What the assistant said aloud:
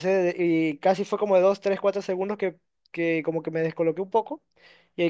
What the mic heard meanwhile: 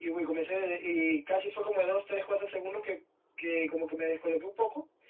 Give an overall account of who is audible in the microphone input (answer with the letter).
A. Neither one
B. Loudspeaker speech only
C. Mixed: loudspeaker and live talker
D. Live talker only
B